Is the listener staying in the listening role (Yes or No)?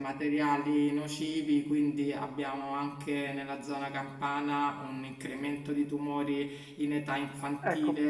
Yes